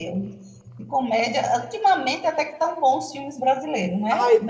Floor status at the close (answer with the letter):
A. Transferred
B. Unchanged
A